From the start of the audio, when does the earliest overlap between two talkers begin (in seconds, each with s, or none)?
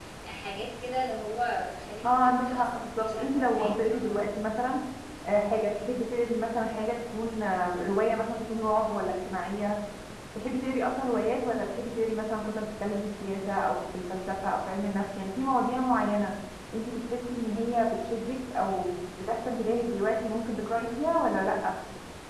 2.0 s